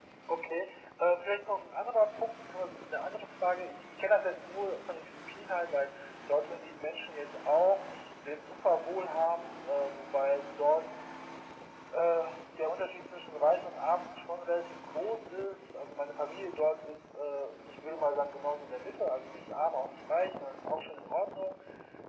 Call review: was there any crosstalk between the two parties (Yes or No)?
No